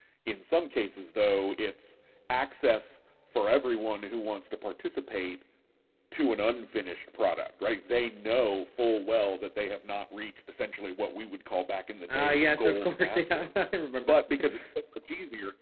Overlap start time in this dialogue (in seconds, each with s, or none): 12.1 s